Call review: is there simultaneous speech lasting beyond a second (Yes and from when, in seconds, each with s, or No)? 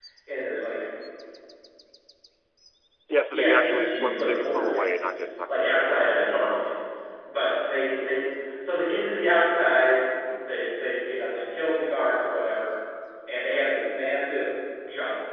Yes, from 3.3 s